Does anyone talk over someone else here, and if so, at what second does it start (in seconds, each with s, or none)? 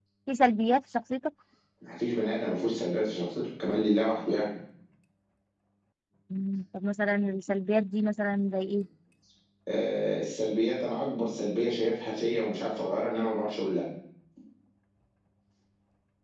none